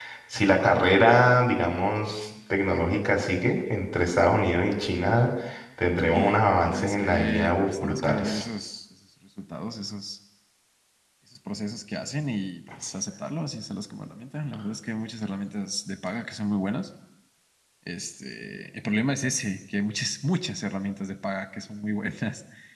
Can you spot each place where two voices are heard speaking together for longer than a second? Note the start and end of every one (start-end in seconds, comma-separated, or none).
6.1-8.4